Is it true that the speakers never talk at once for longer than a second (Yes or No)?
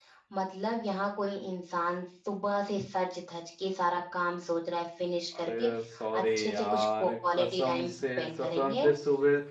No